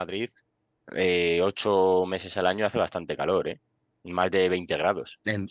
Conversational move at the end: listening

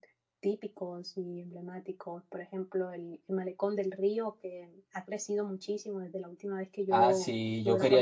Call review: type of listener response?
taking over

